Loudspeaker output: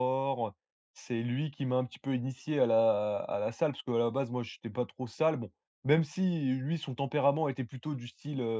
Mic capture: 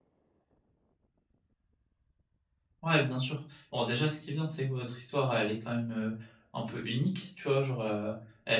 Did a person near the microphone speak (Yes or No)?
Yes